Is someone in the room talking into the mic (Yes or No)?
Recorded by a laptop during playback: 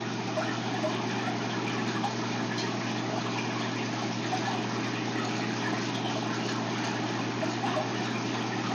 No